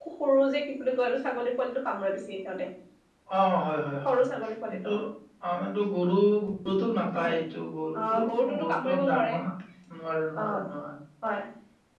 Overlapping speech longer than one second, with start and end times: 8.0-9.3

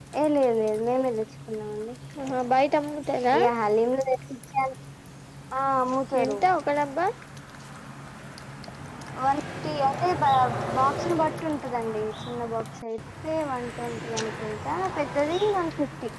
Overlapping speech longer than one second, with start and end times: none

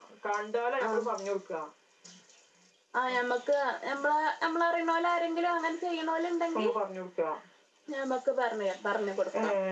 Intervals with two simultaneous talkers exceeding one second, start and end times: none

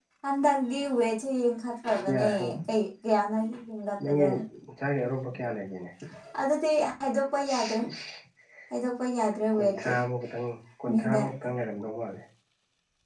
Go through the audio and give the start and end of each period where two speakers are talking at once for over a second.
none

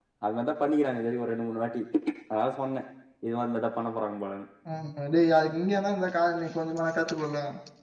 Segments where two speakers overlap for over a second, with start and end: none

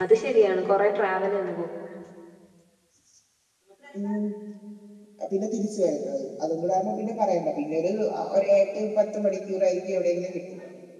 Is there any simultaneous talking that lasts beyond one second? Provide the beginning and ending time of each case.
none

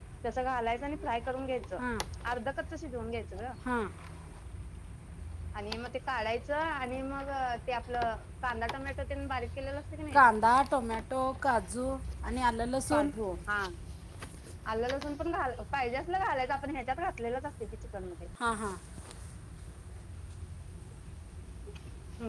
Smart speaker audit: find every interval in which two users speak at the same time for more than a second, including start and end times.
none

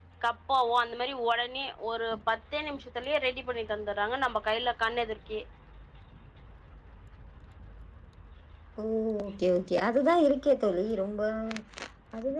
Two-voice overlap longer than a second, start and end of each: none

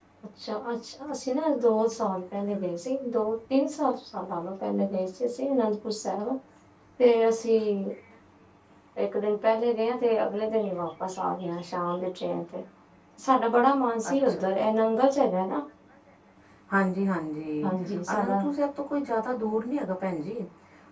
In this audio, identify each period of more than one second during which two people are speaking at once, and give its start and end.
none

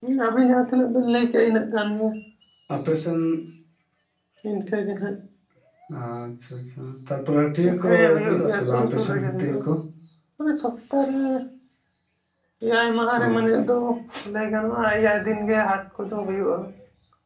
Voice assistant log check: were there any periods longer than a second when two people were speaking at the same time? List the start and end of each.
7.8-9.6

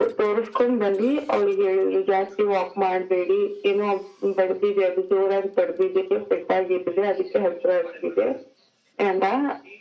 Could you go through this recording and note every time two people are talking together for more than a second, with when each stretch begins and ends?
none

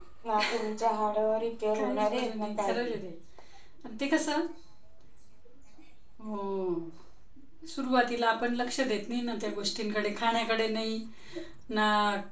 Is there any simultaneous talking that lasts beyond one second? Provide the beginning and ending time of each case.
1.8-3.0

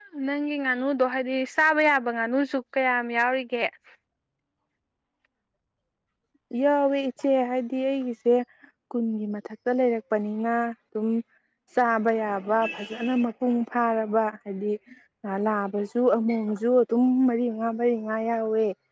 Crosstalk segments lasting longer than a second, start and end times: none

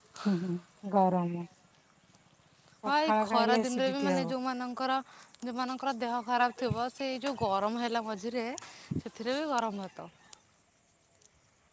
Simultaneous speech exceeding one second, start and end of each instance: 2.9-4.2

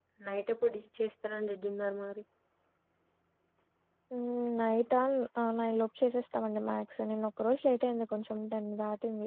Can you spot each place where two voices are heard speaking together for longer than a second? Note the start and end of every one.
none

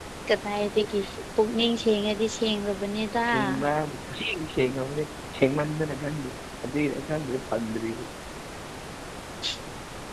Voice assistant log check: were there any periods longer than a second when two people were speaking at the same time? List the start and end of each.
none

